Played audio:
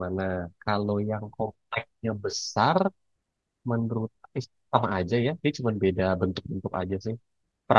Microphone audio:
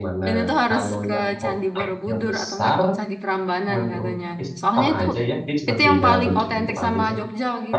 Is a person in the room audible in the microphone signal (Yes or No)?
Yes